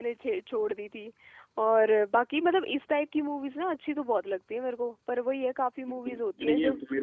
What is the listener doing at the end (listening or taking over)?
taking over